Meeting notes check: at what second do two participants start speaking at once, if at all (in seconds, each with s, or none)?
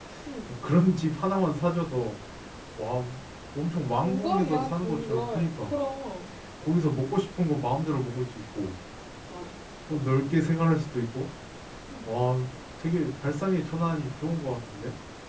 4.0 s